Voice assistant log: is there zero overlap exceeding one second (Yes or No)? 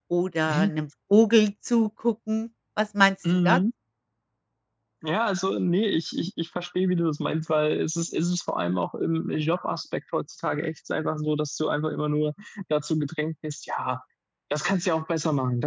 Yes